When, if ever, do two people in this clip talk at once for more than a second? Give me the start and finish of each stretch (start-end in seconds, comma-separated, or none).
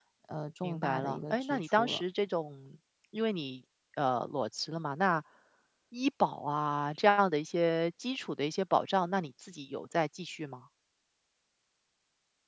0.6-2.0